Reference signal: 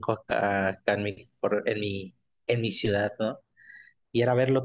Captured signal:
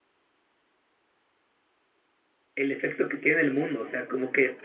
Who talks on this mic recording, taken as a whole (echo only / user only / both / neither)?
user only